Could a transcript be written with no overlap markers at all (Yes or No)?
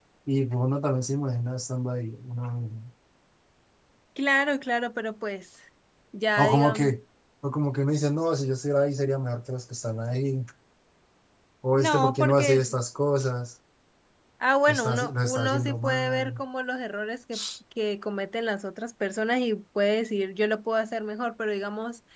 No